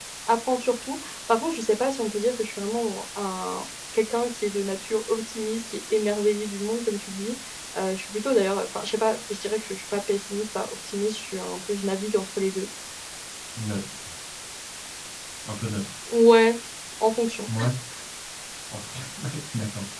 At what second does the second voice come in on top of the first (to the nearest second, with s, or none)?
none